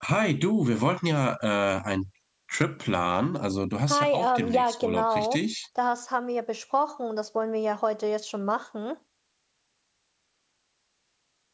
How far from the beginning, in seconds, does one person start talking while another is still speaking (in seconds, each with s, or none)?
3.9 s